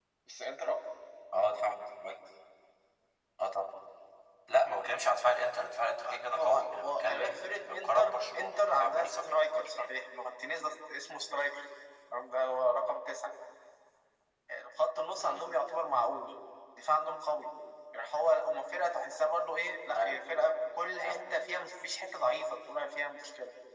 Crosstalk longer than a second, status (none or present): present